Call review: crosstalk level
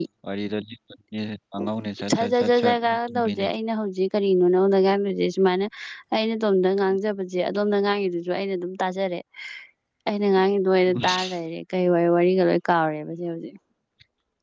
present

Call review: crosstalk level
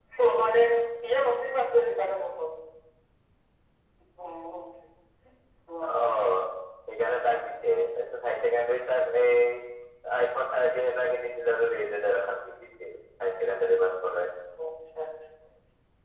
none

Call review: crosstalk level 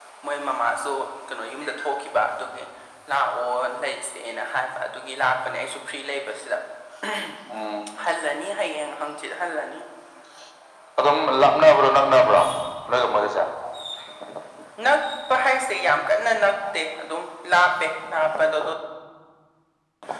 none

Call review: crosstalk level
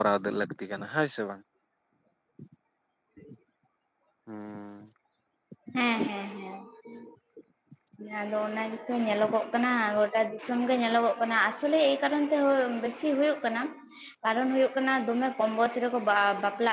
none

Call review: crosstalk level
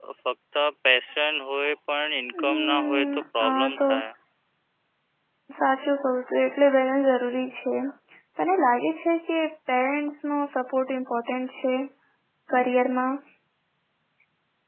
present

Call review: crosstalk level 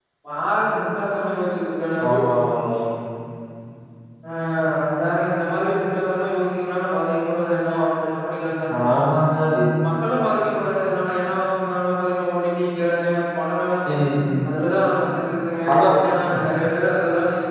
none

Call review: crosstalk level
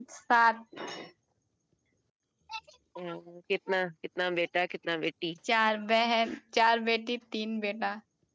none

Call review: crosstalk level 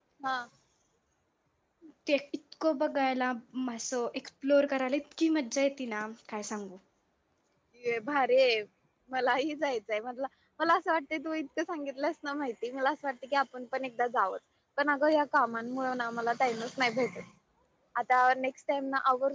none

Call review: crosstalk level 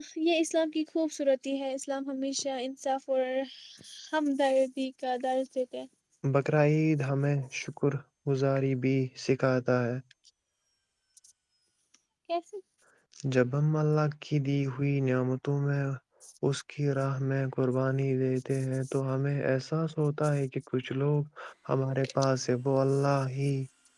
none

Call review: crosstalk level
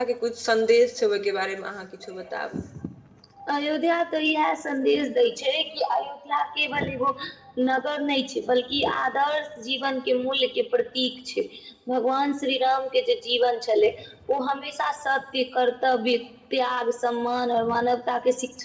none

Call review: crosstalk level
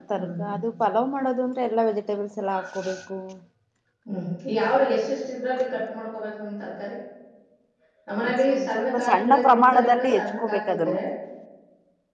present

